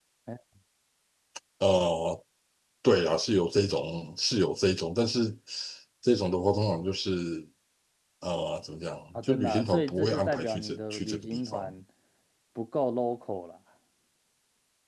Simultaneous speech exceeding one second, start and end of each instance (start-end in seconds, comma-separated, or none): 9.2-11.7